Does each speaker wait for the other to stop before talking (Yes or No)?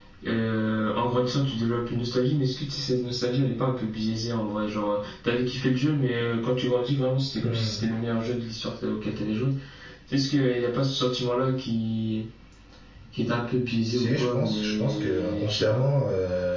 No